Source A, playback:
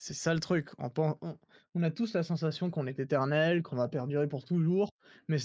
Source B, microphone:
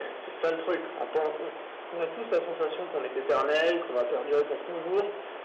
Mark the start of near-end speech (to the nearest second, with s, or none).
none